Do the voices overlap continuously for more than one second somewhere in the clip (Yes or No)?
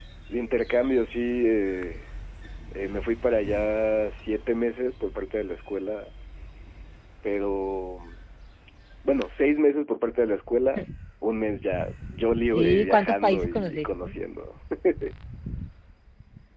Yes